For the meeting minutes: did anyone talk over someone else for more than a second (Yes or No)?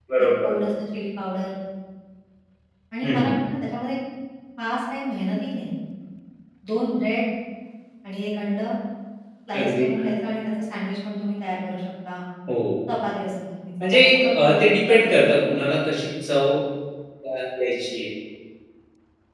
Yes